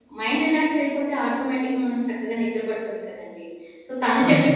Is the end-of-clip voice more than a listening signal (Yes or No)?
No